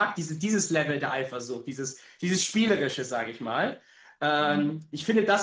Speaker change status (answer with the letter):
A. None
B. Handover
A